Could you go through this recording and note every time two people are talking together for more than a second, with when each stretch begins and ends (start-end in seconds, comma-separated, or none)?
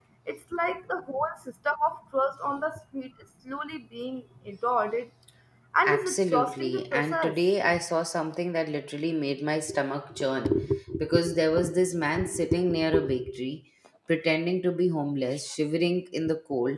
5.8-7.3